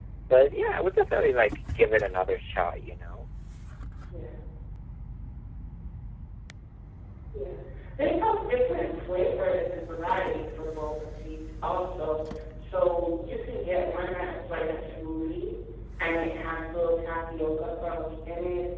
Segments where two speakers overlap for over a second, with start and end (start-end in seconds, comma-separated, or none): none